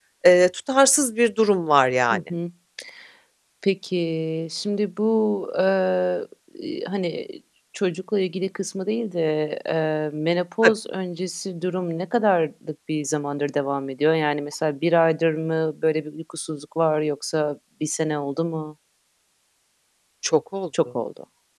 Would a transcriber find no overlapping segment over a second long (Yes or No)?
Yes